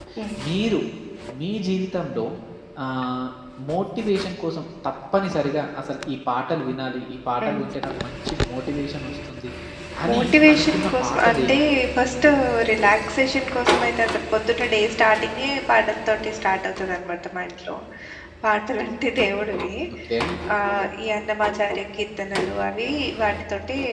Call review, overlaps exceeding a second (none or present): present